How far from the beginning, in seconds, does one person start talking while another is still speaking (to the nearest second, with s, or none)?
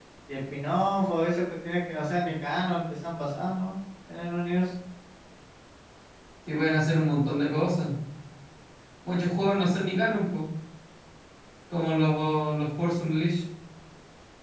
none